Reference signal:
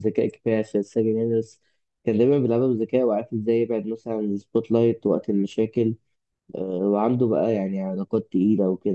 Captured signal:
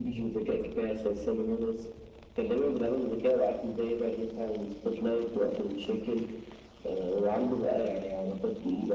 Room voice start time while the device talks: none

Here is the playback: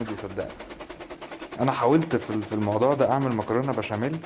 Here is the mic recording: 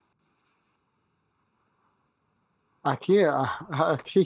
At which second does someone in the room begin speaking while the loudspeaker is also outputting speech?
2.9 s

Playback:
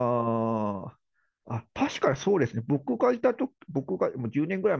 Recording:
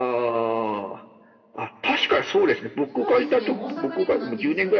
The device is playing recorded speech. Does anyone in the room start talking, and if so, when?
2.9 s

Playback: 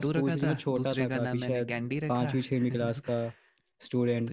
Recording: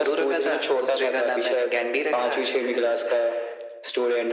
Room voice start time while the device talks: none

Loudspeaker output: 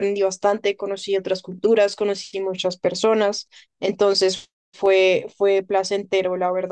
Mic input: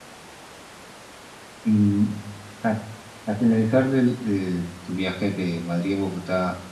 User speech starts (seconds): 1.6 s

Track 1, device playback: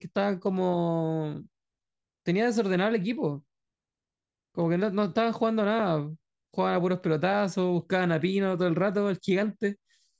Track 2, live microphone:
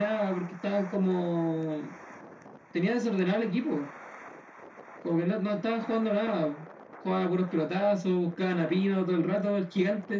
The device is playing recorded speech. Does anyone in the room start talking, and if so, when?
none

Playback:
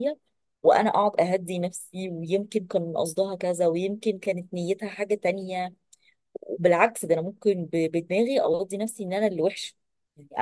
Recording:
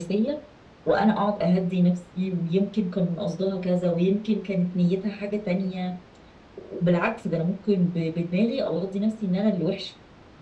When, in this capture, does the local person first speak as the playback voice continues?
none

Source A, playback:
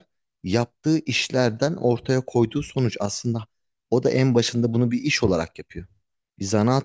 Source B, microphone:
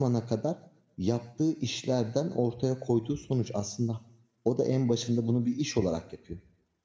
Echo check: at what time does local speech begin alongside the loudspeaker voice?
none

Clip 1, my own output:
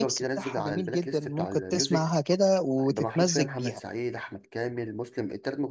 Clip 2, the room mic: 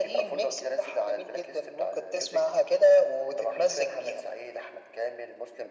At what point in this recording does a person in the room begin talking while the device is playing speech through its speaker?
none

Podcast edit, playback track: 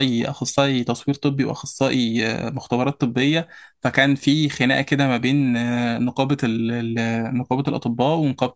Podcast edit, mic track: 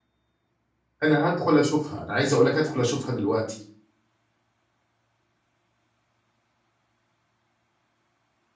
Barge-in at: 1.0 s

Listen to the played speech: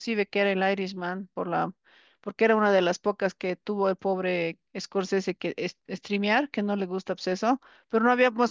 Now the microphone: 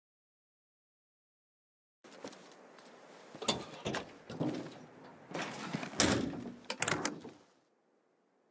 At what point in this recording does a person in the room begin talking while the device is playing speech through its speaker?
none

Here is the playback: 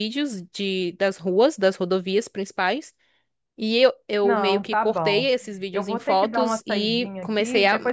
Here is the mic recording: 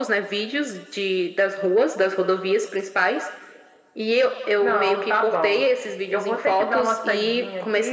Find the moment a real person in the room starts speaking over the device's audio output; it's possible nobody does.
none

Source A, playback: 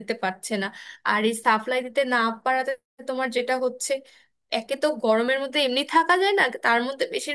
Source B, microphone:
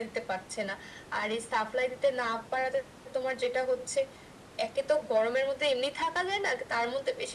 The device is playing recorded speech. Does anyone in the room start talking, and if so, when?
none

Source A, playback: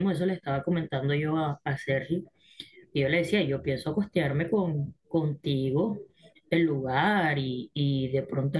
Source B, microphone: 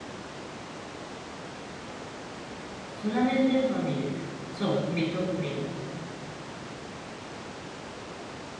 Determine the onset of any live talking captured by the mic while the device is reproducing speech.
2.9 s

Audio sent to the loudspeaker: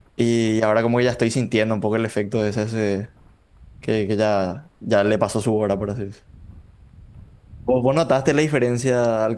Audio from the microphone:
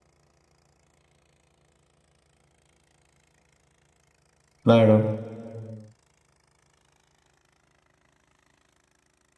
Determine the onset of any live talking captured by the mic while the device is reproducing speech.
4.6 s

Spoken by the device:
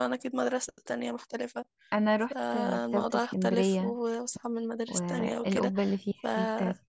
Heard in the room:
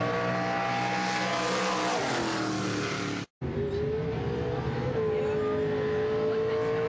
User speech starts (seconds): none

